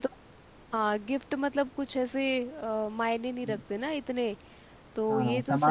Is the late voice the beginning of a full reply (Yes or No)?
Yes